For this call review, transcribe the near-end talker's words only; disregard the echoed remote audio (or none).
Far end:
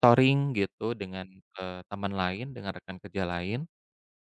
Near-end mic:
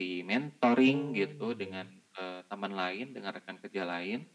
Oh, iya ya.